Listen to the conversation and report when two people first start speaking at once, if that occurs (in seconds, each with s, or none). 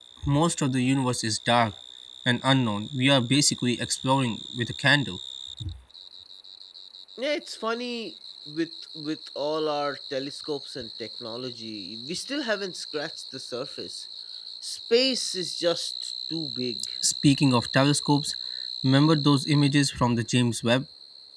none